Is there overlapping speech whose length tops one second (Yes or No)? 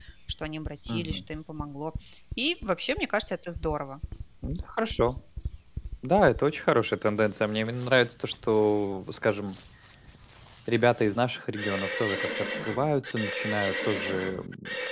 No